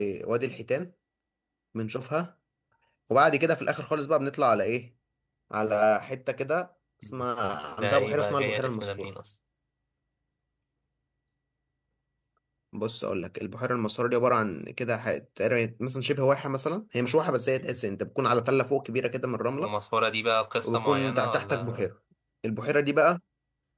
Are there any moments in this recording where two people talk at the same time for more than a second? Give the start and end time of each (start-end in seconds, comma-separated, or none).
7.8-9.1, 20.6-21.9